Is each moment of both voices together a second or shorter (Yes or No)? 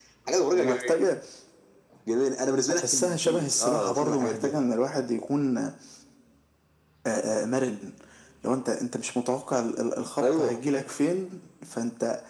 No